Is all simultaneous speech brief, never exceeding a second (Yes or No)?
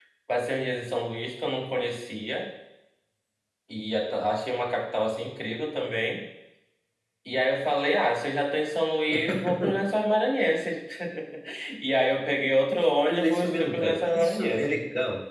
No